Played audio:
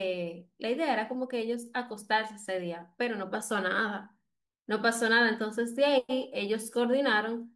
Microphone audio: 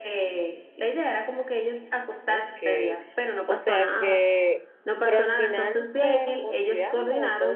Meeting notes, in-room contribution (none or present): present